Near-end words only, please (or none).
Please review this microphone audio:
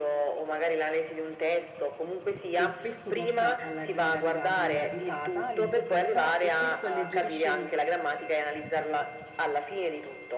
Che spesso porta alla- all'ilarità, quindi alla risata all'improvvisa, e questo alleggerisce